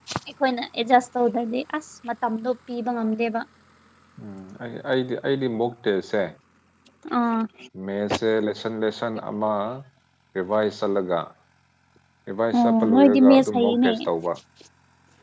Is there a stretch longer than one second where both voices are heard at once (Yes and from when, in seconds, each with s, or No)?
Yes, from 12.6 s